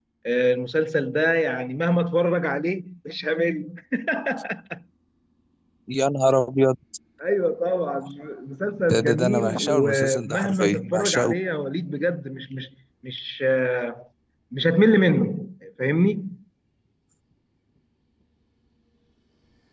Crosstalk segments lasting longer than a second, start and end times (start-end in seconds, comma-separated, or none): 8.9-11.3